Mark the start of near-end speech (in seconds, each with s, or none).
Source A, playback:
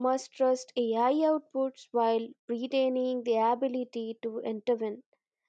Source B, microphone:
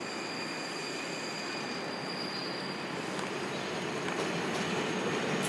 none